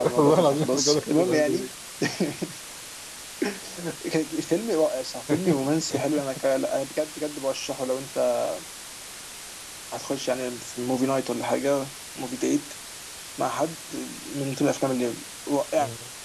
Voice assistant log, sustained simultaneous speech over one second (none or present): present